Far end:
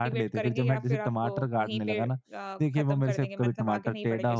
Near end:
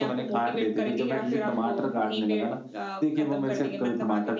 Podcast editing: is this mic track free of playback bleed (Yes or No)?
No